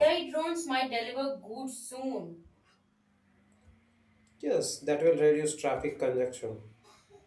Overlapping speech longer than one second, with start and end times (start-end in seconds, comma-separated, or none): none